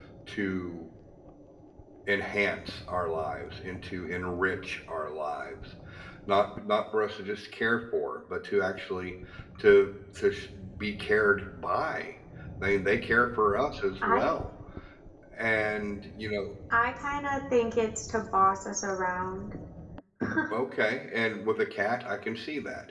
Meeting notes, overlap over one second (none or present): none